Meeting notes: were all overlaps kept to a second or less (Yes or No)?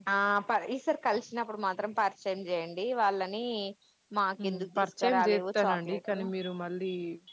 No